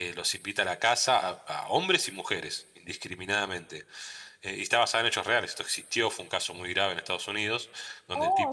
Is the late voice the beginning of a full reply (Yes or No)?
Yes